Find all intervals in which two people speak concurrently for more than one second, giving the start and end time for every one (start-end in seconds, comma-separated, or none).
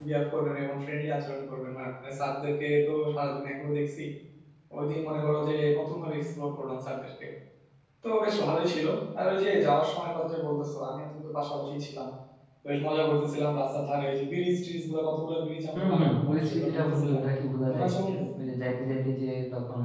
15.7-17.2